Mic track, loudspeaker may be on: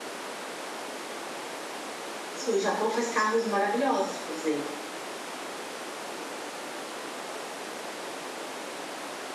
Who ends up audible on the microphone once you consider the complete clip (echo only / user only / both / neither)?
user only